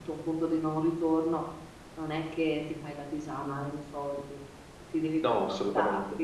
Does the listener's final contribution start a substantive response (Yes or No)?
No